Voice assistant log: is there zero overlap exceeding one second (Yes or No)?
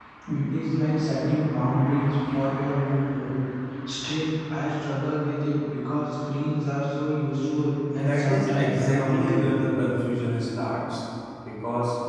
No